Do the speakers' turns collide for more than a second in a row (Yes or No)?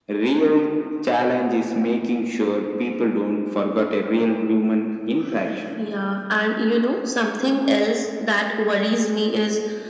No